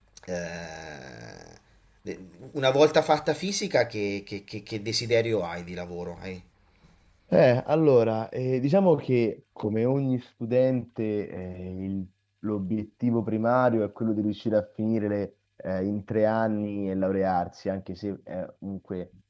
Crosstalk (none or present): none